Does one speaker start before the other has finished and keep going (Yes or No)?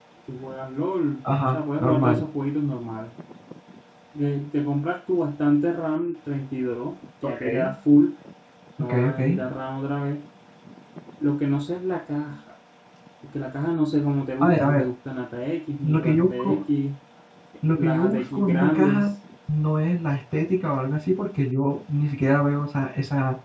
Yes